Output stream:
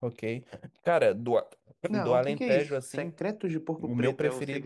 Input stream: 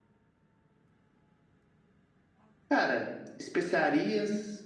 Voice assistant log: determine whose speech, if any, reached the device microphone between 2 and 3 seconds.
user only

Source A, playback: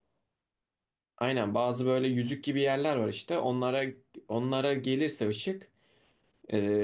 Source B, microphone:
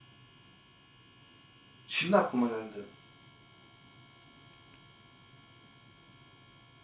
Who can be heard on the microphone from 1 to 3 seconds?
user only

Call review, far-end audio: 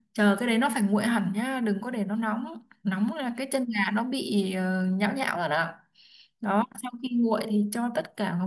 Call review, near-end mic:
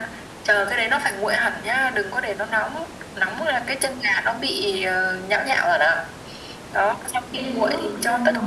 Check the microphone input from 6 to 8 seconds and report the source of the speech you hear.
both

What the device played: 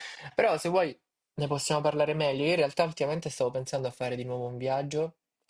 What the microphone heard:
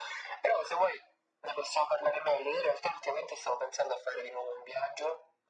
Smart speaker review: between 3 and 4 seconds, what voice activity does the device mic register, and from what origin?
echo only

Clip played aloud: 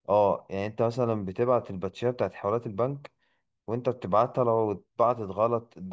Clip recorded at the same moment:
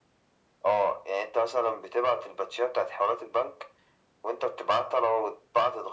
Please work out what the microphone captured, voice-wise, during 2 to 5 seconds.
echo only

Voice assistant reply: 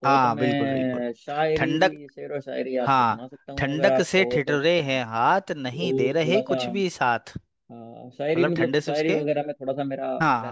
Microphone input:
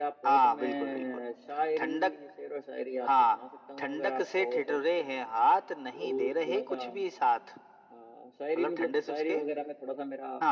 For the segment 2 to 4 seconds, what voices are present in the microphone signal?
echo only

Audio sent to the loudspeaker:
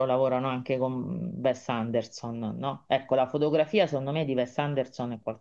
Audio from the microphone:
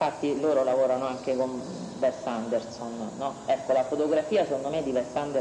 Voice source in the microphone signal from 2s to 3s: echo only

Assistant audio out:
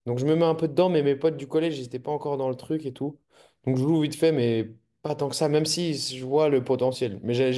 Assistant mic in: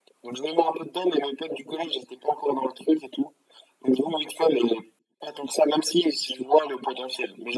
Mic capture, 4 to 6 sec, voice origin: echo only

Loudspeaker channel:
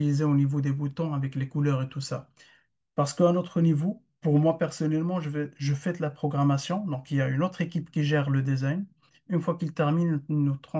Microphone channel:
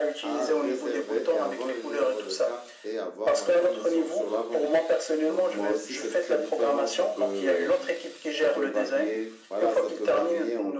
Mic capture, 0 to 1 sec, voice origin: both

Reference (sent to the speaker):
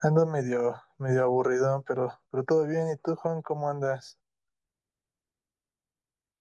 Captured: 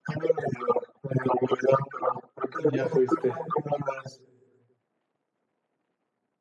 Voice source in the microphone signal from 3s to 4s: both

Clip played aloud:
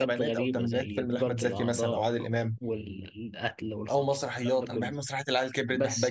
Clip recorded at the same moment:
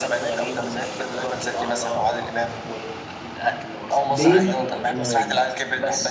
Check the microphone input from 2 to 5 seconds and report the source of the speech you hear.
both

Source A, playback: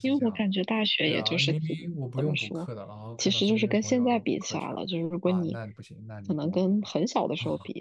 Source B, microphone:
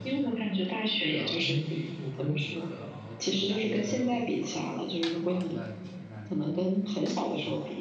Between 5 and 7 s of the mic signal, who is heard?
echo only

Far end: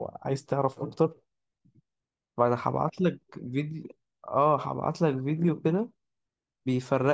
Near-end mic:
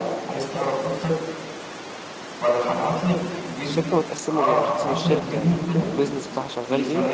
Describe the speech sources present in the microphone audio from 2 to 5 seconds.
both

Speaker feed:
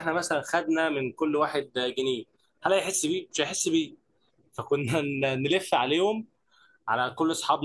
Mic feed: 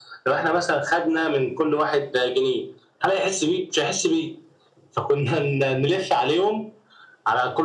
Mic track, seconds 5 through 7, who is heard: echo only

